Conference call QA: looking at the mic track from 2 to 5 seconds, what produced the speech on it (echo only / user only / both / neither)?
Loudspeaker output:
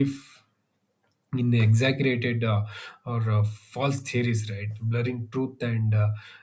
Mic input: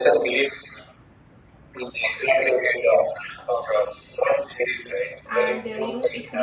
echo only